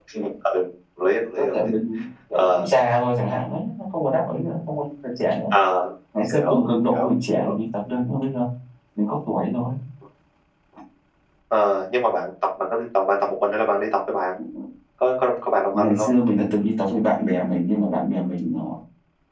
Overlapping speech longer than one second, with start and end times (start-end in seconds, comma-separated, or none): 6.3-7.5